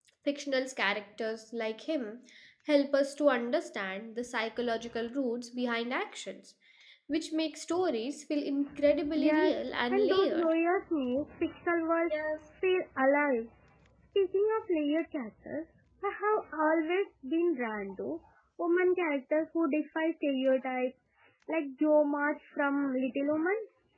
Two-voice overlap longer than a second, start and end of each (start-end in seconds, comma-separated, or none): 9.1-10.5